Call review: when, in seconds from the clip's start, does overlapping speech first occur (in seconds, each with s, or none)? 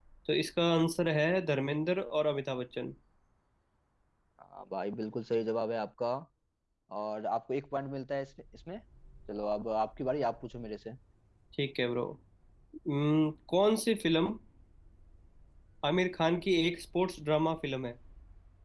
none